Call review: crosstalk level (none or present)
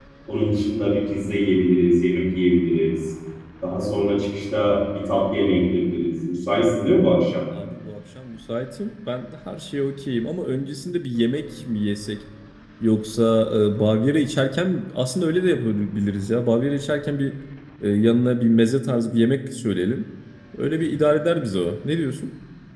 none